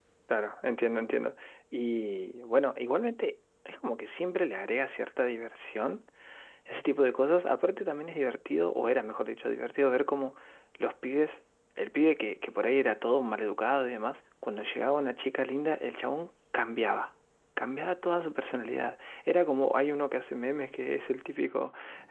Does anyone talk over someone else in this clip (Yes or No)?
No